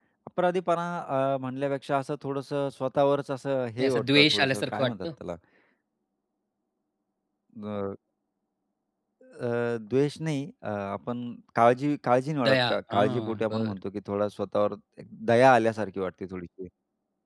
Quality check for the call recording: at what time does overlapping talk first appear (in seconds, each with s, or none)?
3.8 s